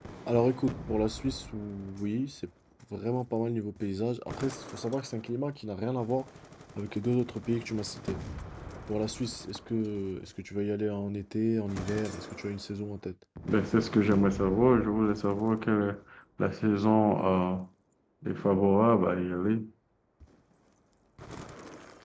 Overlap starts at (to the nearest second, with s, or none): none